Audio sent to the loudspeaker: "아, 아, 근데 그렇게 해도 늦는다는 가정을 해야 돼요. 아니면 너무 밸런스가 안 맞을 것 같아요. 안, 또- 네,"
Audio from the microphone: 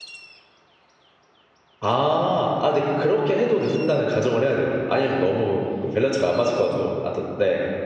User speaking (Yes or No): No